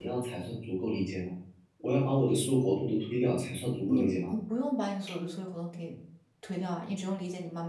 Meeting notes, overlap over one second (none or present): none